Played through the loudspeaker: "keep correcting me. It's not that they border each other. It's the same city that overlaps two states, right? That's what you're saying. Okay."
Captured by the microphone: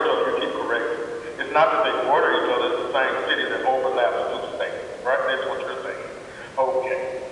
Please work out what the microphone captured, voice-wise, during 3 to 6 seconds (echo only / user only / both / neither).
echo only